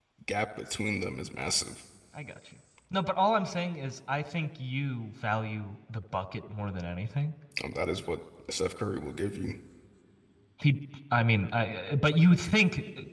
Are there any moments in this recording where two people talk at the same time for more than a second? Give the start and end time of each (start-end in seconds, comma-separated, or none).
none